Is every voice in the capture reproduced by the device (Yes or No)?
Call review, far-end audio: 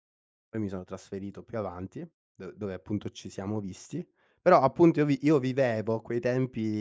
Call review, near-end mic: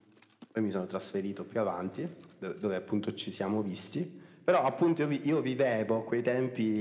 Yes